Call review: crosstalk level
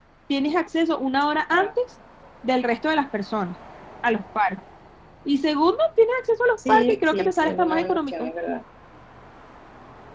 present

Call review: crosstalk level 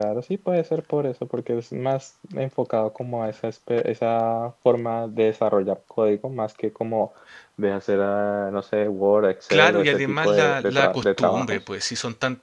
present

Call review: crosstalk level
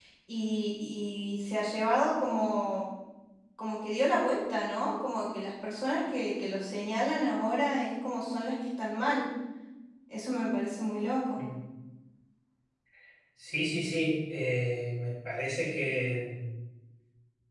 none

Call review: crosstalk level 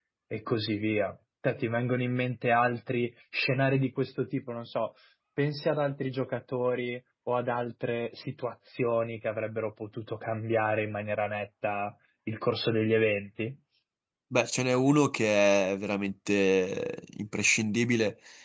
none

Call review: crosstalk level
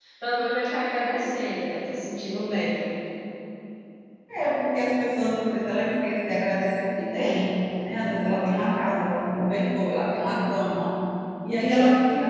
none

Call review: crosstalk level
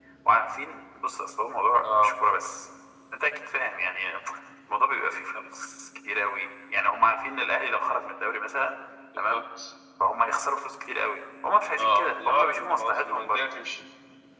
present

